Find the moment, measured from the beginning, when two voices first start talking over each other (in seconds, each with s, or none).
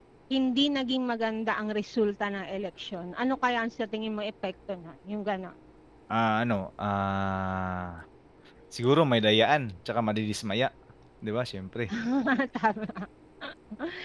none